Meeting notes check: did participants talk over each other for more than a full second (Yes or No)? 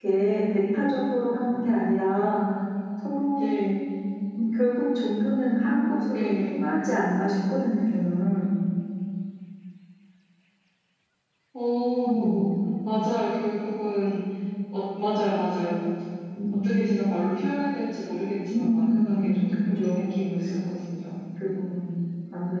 Yes